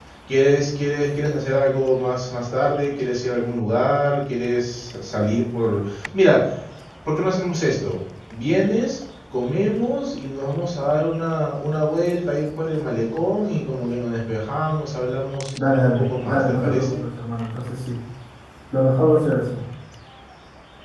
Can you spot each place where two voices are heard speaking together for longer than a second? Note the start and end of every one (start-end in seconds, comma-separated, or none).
15.6-17.0